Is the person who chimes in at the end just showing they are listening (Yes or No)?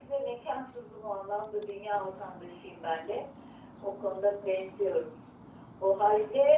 Yes